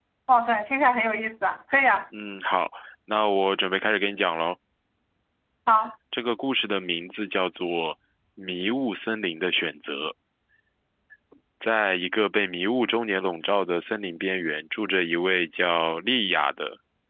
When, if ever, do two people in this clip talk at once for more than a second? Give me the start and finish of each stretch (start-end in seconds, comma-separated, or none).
none